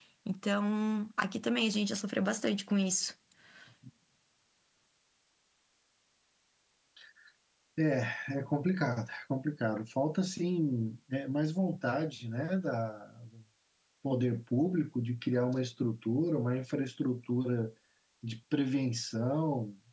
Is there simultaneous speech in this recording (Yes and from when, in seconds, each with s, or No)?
No